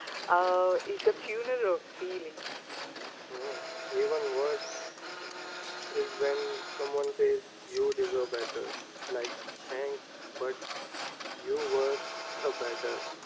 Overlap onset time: none

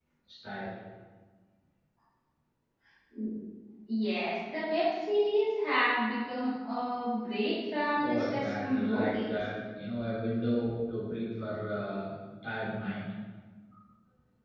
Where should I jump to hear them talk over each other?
8.0 s

